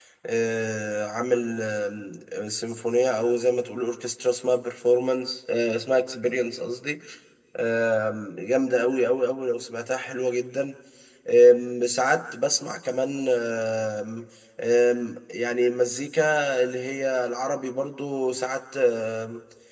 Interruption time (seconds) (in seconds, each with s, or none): none